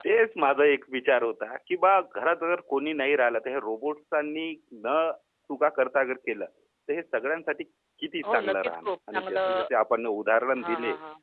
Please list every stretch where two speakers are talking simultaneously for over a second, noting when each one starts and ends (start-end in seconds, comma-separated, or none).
8.3-9.6